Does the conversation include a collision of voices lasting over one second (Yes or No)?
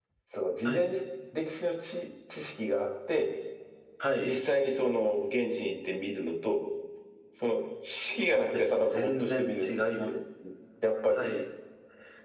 Yes